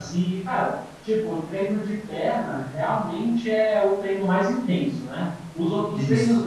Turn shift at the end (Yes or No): No